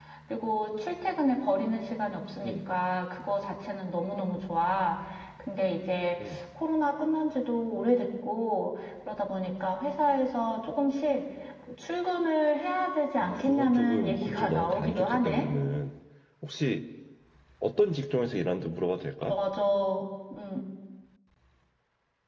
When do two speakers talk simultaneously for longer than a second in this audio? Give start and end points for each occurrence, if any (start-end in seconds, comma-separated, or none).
13.2-15.5